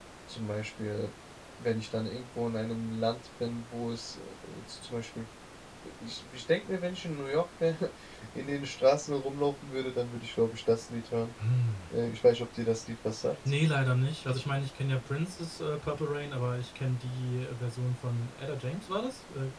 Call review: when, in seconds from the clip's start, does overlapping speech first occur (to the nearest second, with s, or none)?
none